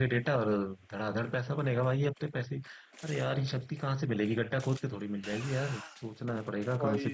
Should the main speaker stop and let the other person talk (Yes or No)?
Yes